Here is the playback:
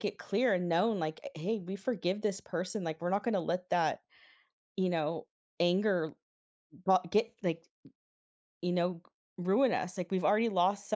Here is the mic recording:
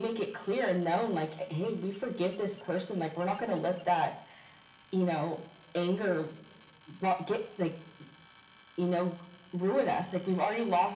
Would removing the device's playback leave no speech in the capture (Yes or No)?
Yes